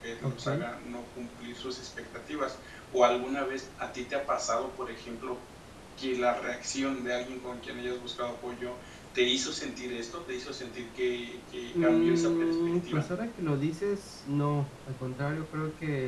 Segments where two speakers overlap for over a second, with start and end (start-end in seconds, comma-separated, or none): 11.8-13.0